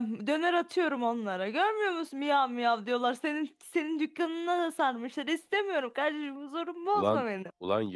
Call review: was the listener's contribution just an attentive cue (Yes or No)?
No